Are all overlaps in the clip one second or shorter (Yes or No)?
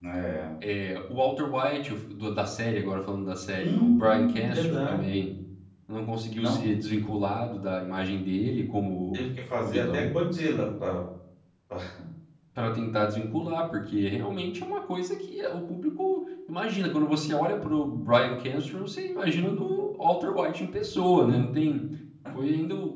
No